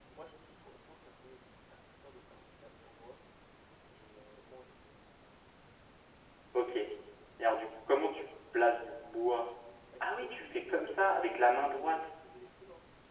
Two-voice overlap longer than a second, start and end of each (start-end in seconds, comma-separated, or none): 10.0-12.0